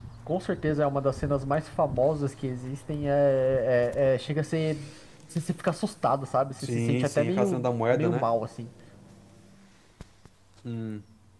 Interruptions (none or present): present